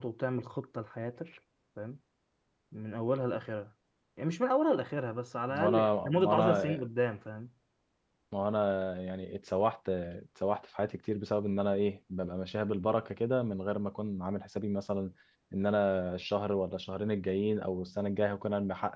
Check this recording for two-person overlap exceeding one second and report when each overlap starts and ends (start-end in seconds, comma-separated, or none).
5.6-6.8